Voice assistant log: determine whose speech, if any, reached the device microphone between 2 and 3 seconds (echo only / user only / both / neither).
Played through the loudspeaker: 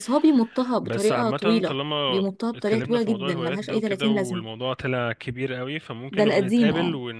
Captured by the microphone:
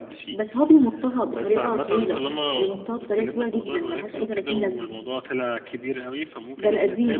echo only